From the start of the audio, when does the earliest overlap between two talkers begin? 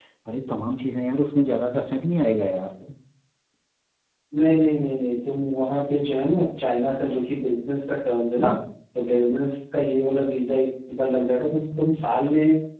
none

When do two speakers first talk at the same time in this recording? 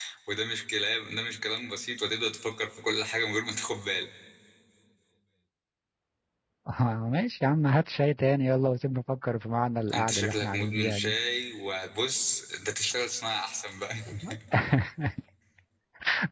9.9 s

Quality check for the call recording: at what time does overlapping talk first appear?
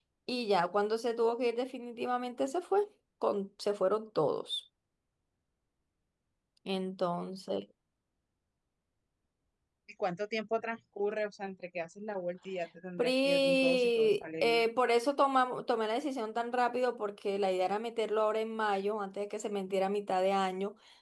13.0 s

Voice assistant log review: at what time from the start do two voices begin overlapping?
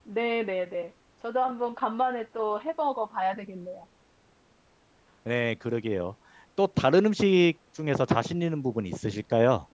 none

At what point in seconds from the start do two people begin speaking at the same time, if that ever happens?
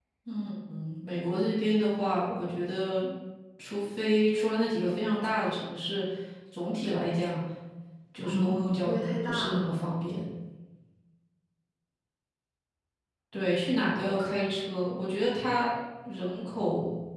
8.2 s

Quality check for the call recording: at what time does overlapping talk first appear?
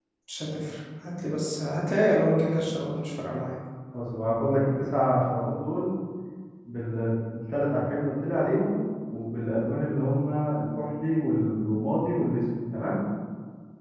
none

